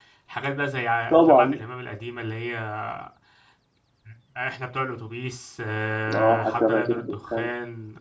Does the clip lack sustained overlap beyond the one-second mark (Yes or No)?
No